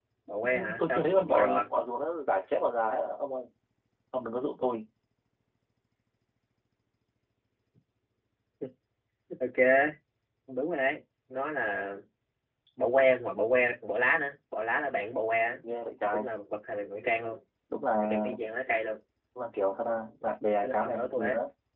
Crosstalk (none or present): present